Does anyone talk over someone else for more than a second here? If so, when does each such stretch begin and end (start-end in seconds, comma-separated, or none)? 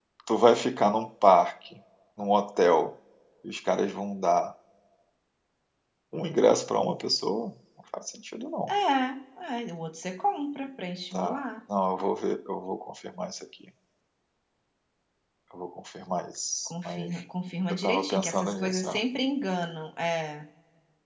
17.7-19.0